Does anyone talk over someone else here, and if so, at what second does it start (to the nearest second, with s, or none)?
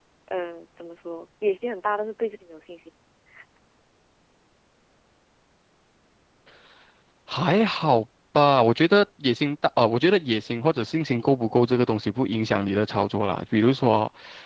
none